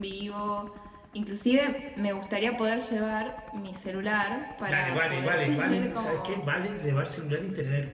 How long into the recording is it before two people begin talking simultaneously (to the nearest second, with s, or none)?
5 s